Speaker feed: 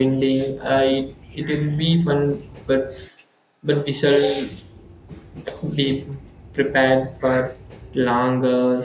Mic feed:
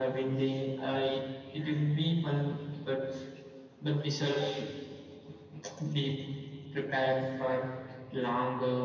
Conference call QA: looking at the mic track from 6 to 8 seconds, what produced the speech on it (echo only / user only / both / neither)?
echo only